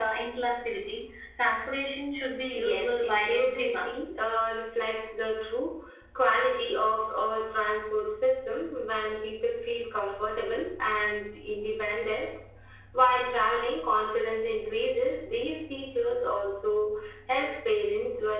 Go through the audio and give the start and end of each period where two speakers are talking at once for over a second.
2.6-3.9

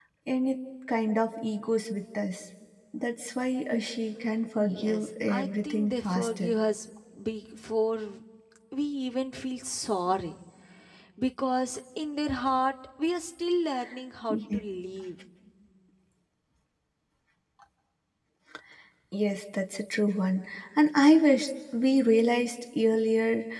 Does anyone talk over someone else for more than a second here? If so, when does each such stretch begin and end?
4.6-6.5

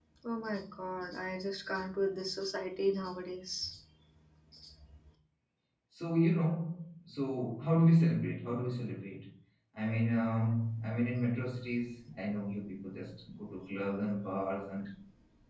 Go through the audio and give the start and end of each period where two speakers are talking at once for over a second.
none

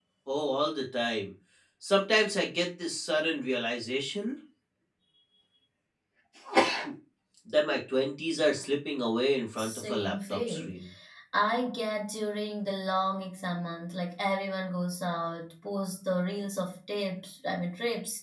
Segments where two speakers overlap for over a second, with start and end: 9.6-10.8

